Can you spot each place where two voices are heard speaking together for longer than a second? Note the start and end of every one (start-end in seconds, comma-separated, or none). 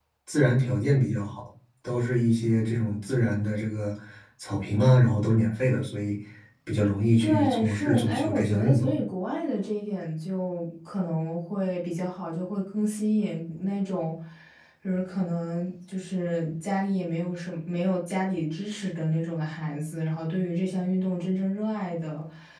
7.2-8.9